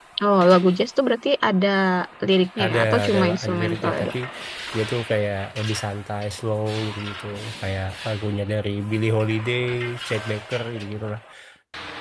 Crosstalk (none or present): present